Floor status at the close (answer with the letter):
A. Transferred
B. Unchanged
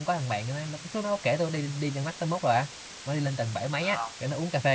B